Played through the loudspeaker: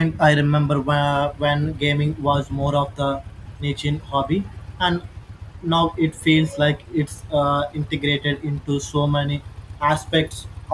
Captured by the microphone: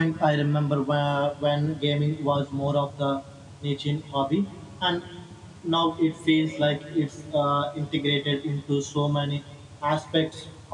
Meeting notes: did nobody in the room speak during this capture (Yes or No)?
Yes